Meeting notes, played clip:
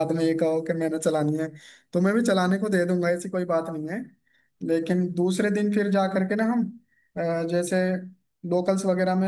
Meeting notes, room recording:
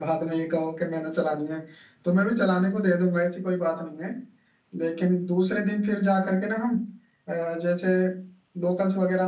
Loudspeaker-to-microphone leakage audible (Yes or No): Yes